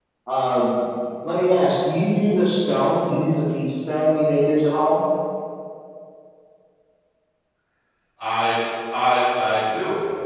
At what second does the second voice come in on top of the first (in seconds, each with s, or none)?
none